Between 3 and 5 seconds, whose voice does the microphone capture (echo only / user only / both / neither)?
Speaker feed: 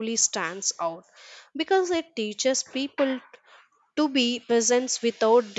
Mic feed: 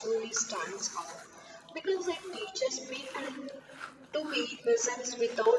echo only